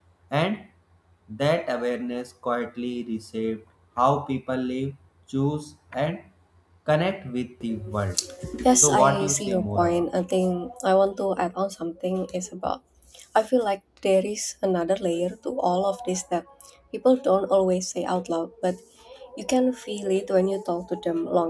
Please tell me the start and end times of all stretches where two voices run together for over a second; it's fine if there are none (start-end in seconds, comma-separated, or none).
8.8-10.0